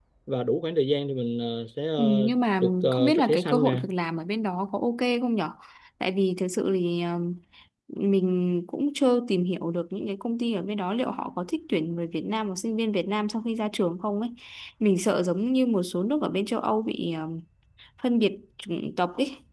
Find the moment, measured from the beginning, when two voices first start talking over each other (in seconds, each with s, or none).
2.0 s